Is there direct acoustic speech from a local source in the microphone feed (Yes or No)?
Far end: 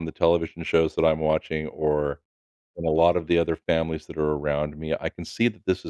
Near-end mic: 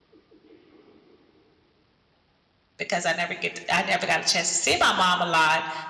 Yes